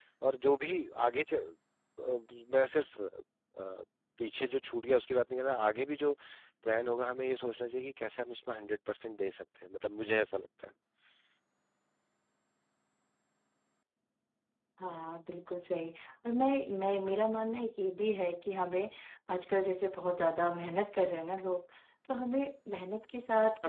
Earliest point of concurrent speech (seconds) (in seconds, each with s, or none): none